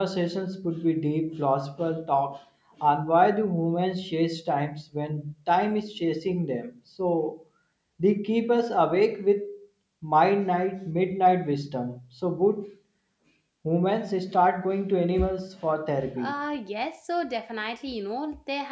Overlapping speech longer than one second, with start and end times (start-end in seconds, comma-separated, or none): none